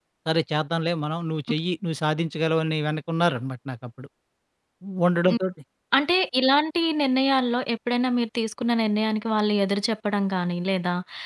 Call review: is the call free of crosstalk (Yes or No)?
Yes